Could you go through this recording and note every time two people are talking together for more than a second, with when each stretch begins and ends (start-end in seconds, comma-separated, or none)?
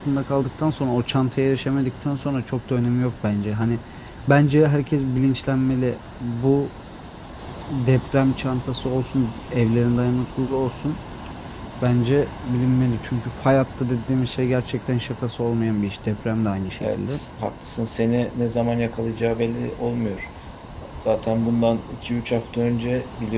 none